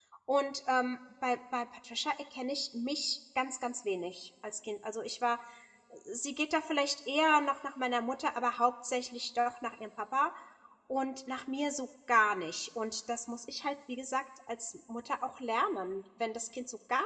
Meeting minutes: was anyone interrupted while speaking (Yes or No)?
No